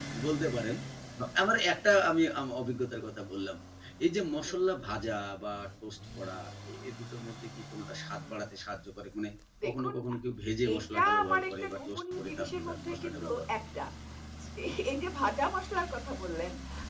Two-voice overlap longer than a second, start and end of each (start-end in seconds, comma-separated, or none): 10.8-13.4